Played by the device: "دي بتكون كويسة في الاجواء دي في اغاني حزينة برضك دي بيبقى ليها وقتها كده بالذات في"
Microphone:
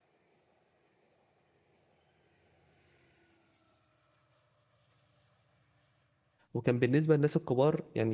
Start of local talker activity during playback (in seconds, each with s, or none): 6.5 s